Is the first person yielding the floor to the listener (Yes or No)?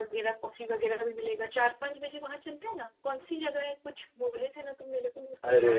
Yes